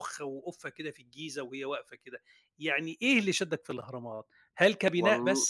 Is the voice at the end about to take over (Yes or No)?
No